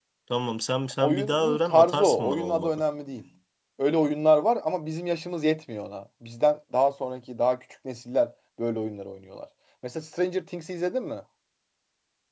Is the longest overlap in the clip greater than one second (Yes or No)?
Yes